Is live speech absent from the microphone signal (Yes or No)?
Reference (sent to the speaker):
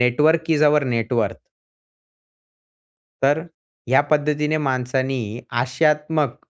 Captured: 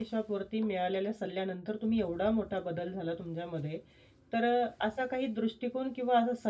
No